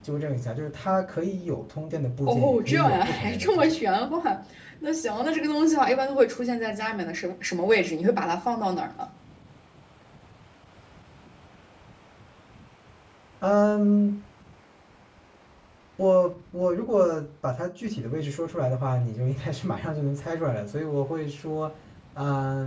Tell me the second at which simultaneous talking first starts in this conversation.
2.3 s

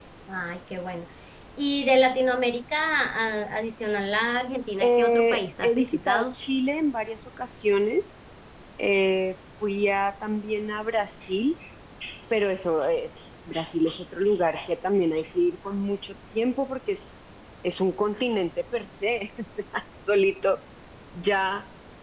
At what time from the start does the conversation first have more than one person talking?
4.8 s

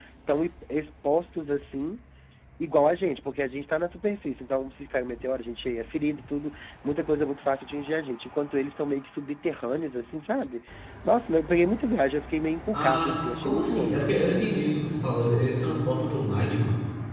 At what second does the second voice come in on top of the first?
12.7 s

